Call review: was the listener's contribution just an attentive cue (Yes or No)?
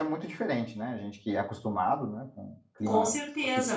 No